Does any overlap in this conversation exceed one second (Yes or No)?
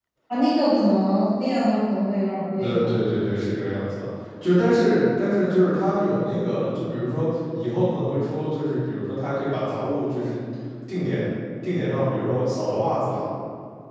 No